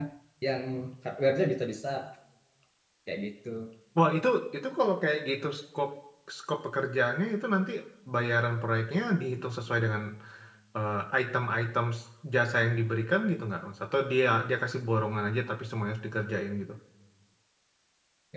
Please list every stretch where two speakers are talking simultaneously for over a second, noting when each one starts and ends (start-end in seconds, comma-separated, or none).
none